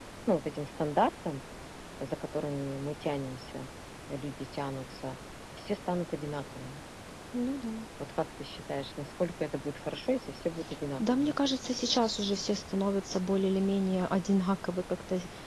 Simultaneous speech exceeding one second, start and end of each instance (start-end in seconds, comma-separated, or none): none